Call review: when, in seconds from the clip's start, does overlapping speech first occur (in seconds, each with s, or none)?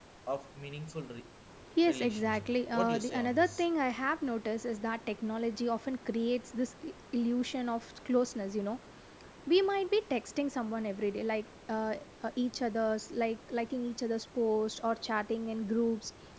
1.9 s